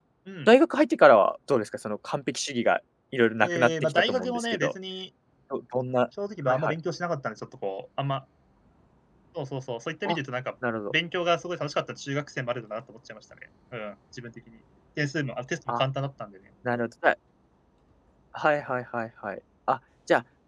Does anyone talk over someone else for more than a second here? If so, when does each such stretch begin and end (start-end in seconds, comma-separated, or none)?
3.4-4.7